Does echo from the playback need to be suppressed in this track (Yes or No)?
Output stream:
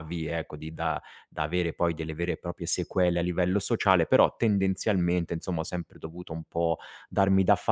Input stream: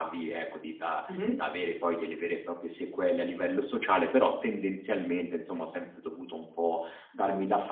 Yes